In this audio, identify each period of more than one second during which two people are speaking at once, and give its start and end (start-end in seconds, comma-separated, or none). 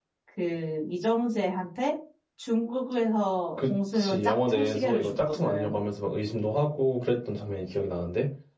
3.6-5.8